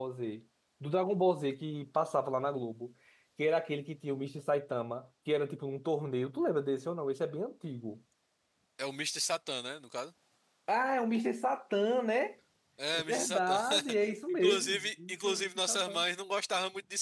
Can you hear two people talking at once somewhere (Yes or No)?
Yes